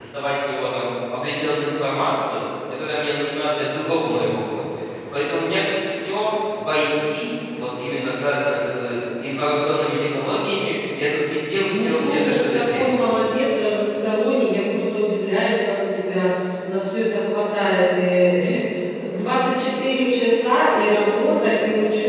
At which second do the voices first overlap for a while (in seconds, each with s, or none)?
11.7 s